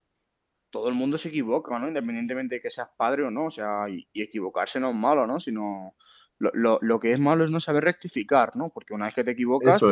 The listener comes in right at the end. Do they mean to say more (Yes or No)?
No